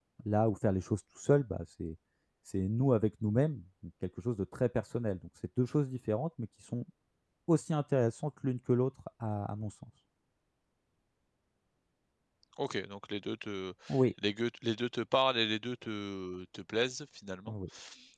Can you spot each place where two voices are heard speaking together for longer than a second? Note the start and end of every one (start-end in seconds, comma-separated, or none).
none